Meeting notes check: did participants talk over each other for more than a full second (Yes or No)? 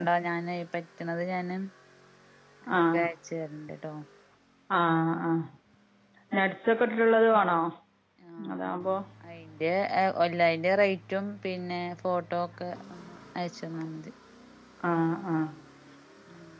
No